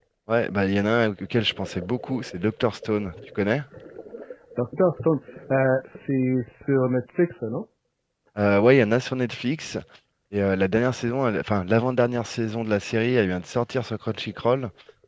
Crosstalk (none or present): none